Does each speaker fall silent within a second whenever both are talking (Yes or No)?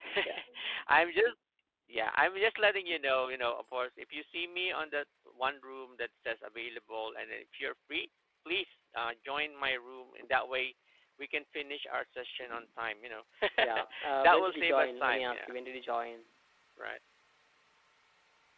No